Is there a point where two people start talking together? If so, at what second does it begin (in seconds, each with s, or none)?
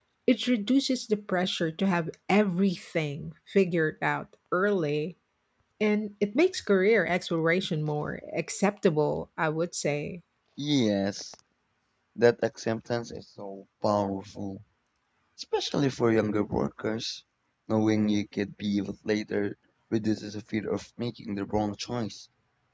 none